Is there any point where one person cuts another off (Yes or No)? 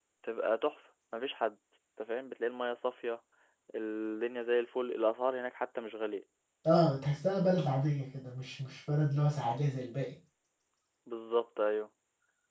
No